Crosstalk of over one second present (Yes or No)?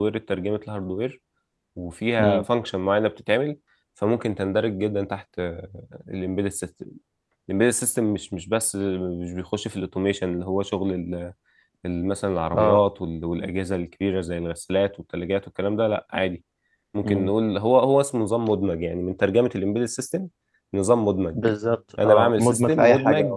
Yes